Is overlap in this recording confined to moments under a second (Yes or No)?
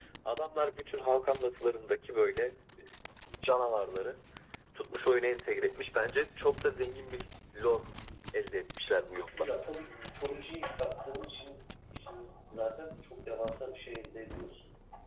Yes